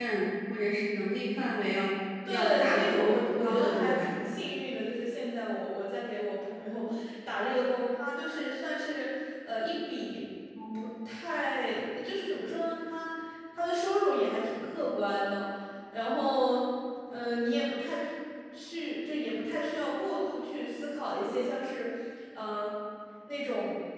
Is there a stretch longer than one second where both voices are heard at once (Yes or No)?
Yes